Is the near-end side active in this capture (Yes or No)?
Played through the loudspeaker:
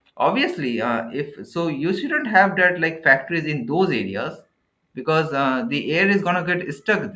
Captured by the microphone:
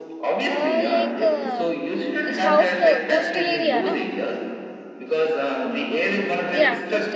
Yes